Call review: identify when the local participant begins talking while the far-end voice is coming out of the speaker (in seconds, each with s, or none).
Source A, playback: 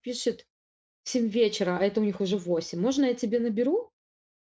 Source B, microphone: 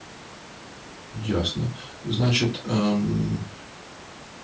1.1 s